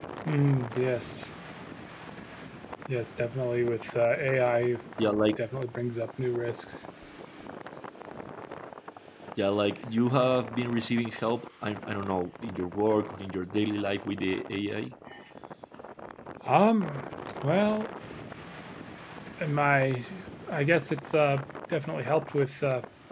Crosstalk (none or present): none